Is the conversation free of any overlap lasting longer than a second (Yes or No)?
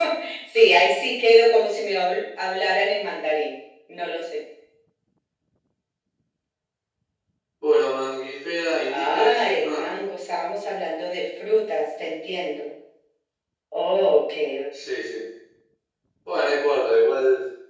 No